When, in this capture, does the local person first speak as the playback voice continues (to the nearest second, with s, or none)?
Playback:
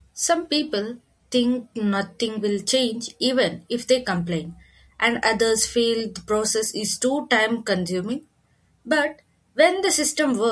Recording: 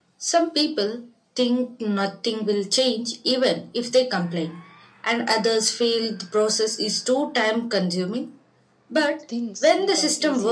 9 s